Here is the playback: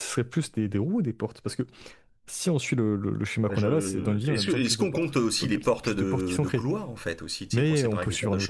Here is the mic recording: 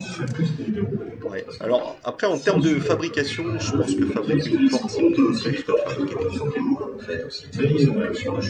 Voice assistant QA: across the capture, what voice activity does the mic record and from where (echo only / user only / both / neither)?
both